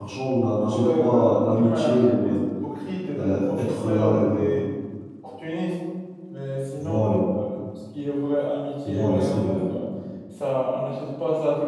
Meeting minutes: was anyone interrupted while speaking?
Yes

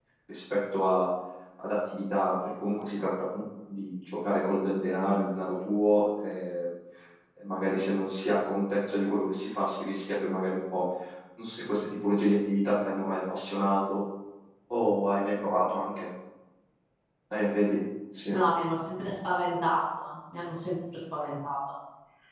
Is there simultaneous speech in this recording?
No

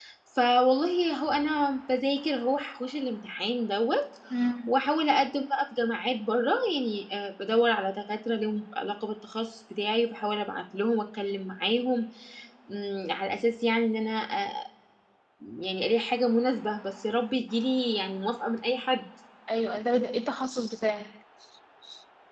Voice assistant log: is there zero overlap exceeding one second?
Yes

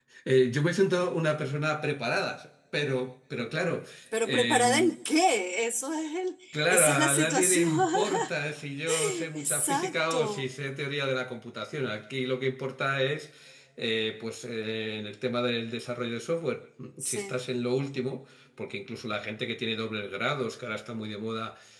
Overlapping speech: Yes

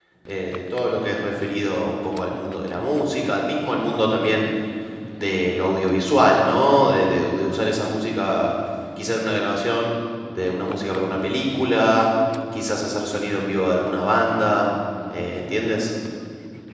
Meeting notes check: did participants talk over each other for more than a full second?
No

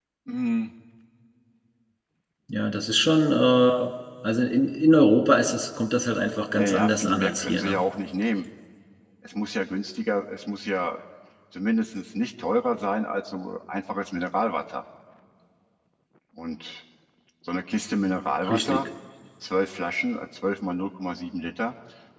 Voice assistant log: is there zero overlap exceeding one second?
No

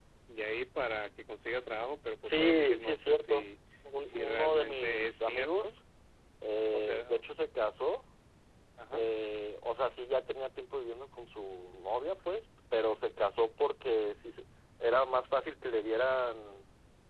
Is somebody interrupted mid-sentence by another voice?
Yes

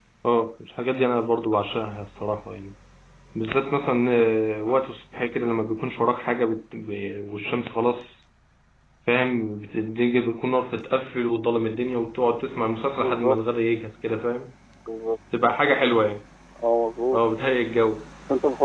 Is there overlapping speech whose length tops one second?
No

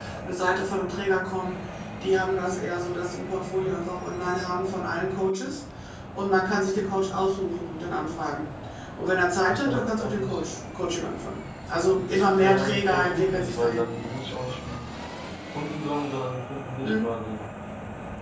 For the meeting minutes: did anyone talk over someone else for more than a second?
Yes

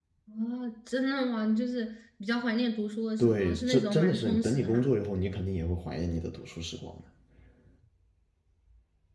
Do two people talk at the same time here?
Yes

